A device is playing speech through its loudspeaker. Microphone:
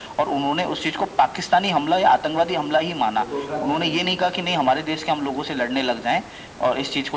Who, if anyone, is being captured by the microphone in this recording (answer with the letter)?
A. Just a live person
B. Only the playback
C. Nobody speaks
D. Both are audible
D